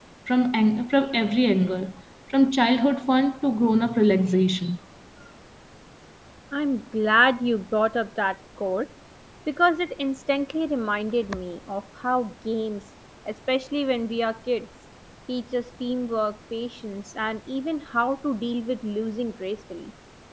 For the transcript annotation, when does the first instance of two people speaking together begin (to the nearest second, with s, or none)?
none